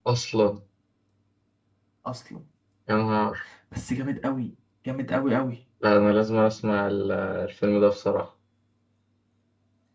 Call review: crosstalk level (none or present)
none